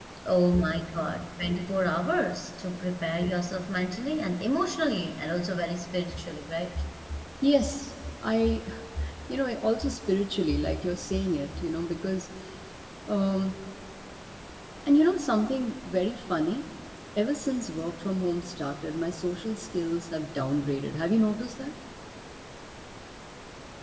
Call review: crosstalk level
none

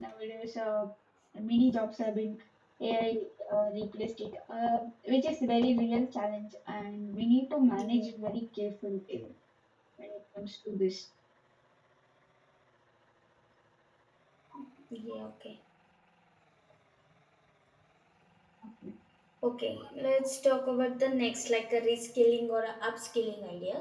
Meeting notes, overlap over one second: none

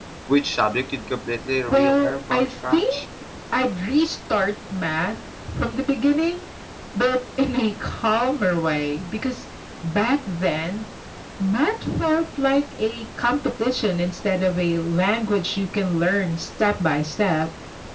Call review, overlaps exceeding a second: present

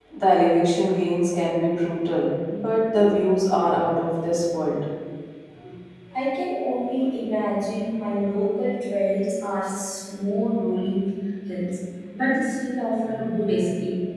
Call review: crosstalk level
none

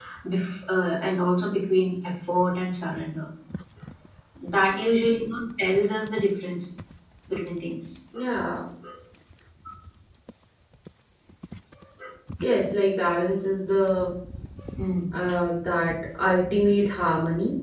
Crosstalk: none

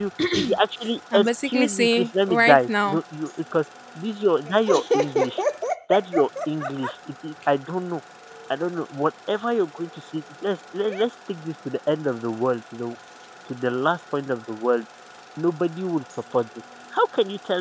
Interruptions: present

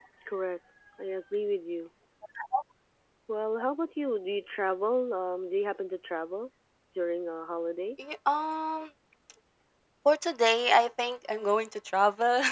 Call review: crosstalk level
none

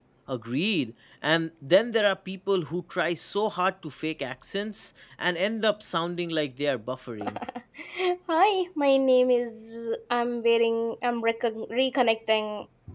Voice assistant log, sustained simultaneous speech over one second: none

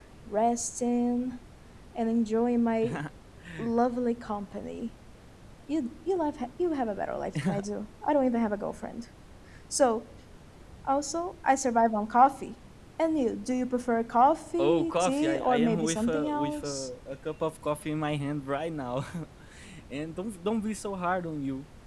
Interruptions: present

